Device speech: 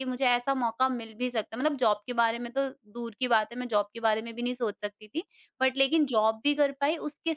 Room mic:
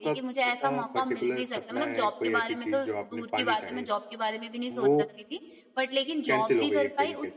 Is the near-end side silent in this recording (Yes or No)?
No